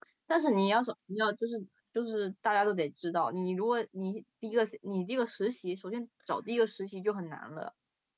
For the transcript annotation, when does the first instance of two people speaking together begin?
none

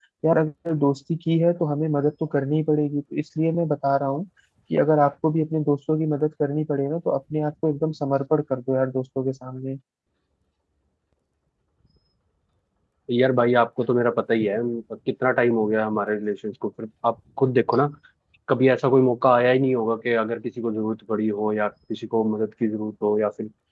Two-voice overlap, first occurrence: none

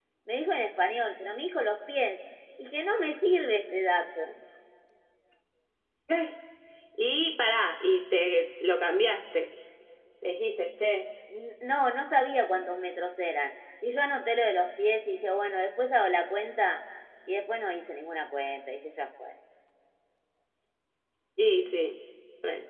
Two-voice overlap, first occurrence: none

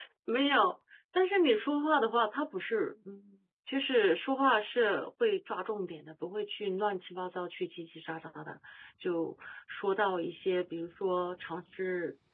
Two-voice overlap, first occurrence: none

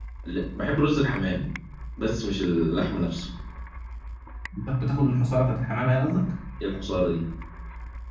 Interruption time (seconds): none

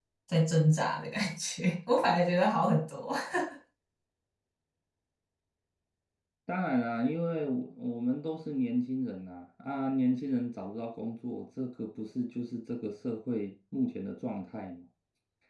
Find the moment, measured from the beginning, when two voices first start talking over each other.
none

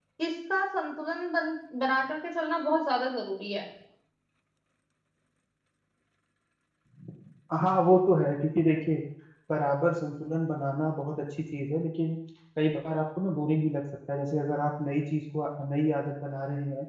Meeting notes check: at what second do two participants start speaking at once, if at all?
none

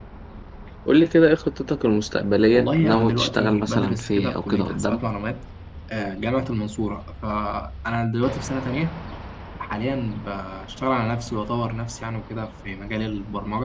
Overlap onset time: 3 s

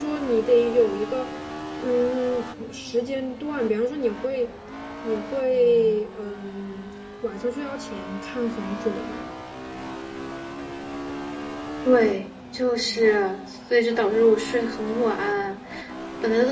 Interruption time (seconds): none

